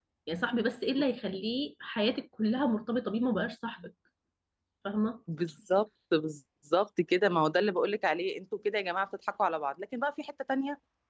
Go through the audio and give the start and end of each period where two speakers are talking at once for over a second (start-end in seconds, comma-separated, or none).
none